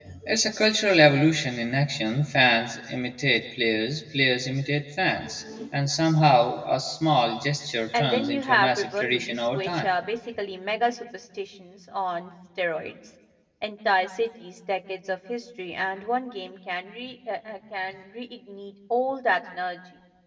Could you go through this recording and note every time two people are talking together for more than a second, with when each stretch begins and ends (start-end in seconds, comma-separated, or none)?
7.9-9.9